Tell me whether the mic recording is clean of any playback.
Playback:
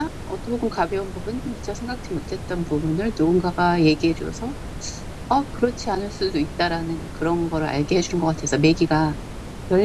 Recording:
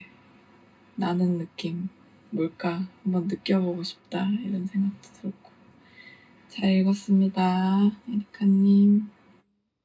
Yes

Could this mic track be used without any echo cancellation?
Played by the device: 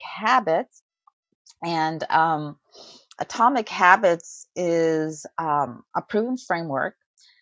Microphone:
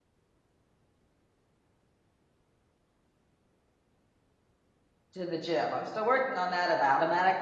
Yes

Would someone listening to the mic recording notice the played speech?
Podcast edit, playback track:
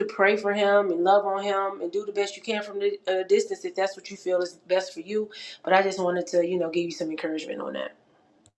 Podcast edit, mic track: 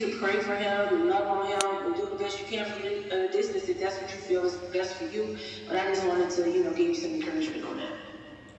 Yes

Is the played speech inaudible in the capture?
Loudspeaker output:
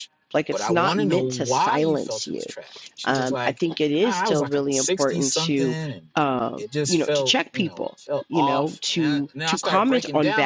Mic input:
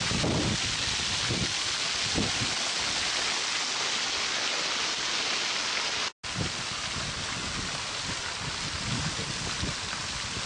Yes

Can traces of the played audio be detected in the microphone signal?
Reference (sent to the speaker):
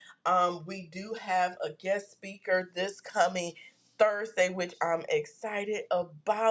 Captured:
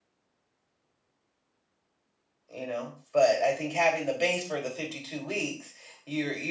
No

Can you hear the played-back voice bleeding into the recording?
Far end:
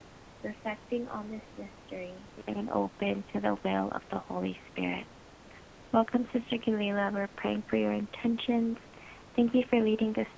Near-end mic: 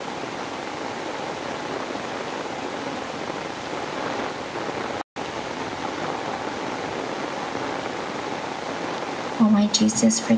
No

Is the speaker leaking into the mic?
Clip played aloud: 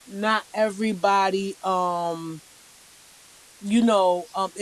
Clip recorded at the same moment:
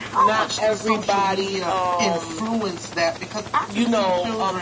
Yes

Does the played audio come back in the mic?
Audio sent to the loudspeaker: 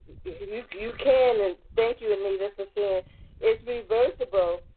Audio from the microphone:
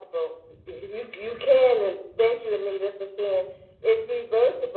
Yes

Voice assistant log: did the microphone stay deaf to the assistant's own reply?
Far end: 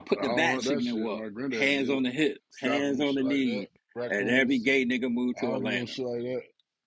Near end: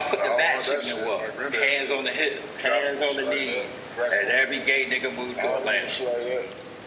No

